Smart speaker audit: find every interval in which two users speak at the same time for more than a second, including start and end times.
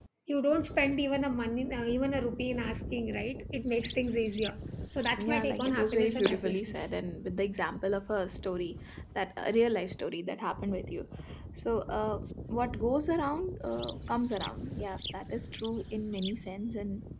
5.2-6.8

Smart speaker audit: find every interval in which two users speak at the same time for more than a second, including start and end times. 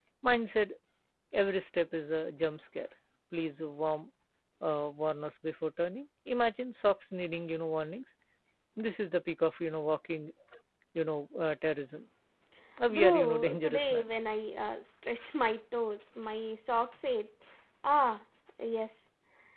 12.9-14.1

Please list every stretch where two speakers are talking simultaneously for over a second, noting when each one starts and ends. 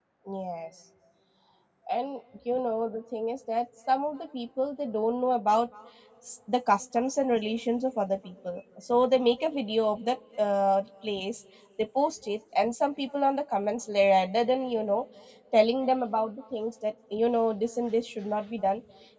none

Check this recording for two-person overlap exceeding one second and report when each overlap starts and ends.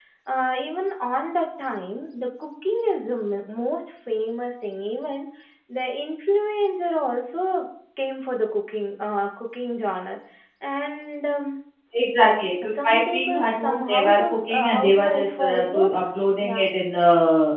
12.6-15.9

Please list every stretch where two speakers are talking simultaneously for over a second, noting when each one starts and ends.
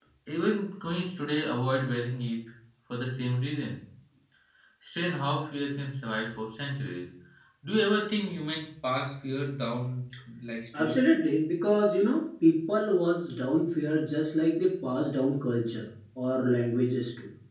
none

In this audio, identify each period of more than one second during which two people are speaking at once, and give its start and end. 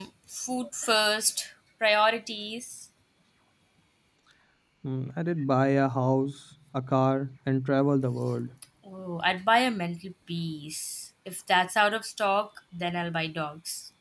none

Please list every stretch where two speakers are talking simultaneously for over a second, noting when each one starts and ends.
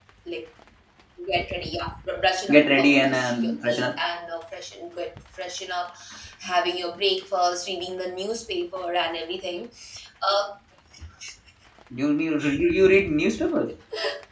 2.5-3.9

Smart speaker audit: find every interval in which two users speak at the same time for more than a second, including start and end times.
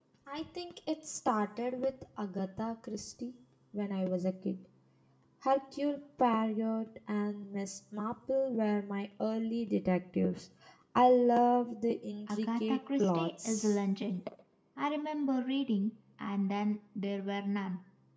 12.3-13.8

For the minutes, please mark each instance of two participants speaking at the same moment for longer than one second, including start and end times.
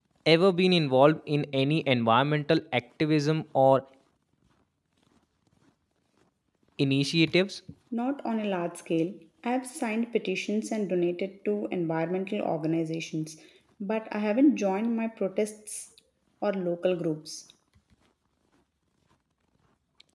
none

